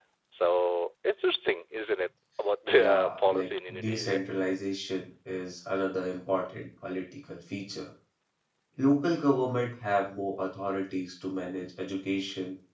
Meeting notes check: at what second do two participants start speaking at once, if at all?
3 s

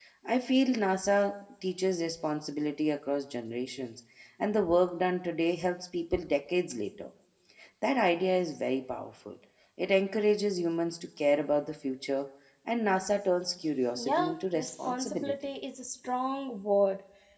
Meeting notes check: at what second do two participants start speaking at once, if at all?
14 s

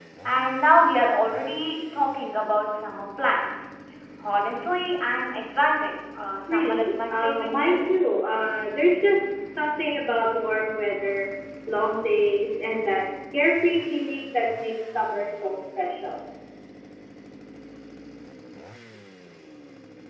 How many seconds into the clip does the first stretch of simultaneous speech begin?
6 s

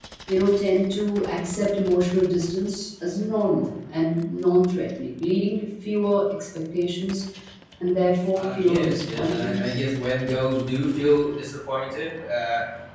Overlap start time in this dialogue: 8 s

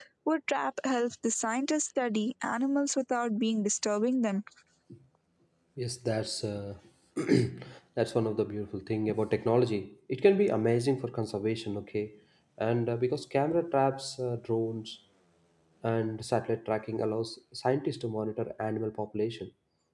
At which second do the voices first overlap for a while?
none

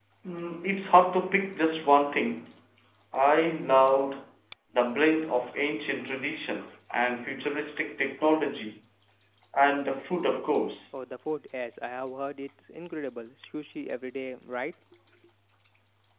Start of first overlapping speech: none

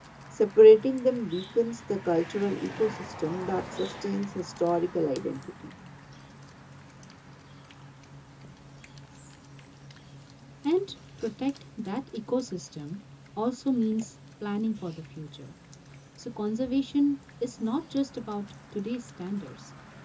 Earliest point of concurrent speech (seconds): none

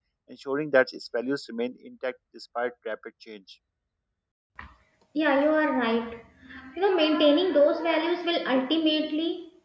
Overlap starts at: none

